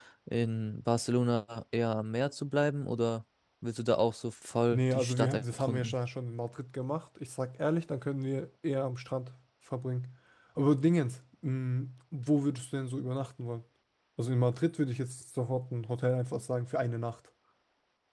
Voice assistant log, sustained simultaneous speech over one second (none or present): present